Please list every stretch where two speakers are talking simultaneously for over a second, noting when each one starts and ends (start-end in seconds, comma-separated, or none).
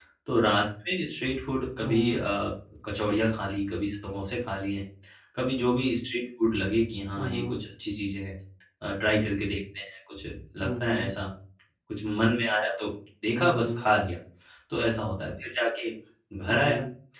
none